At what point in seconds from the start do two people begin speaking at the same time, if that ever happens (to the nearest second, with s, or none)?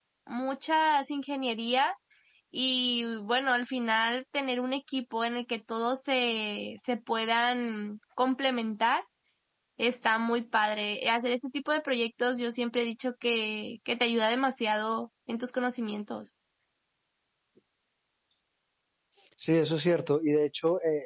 none